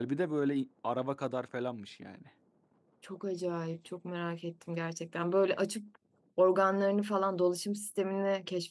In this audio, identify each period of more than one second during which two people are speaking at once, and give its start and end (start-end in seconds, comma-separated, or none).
none